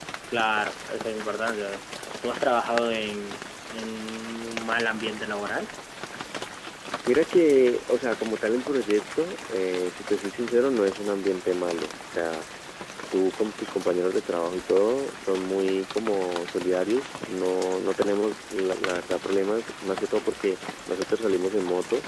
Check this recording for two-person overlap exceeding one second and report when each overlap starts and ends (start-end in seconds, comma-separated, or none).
none